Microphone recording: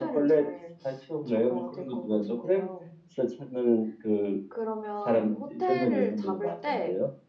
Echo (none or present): present